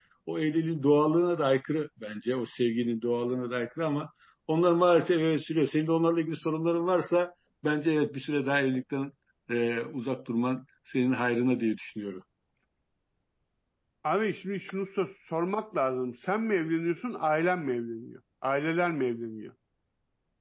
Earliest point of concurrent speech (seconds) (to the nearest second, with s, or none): none